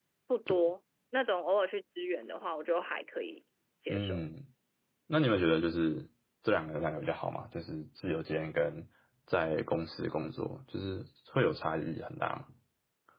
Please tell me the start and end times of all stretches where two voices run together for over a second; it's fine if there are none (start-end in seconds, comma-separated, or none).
none